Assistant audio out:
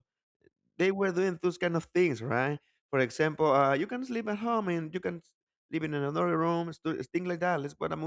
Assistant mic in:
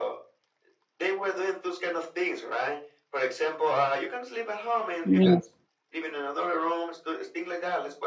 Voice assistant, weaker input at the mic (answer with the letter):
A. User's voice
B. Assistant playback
B